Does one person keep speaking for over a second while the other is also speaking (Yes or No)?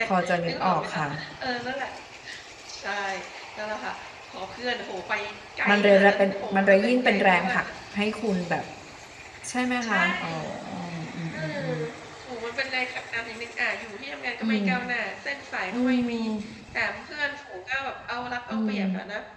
Yes